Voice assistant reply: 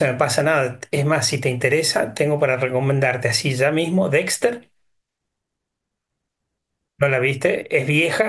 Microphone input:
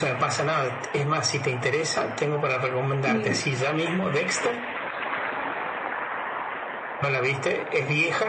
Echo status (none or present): present